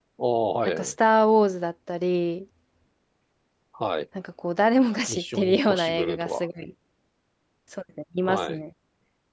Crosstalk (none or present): present